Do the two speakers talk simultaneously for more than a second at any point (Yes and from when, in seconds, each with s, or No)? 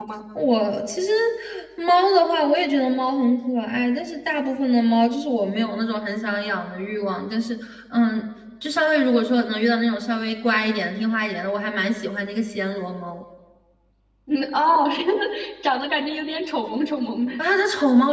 No